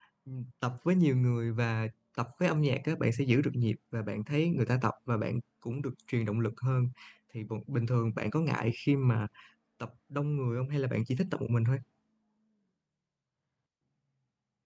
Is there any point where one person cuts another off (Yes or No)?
No